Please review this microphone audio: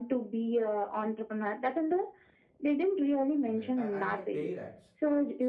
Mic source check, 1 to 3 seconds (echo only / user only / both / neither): echo only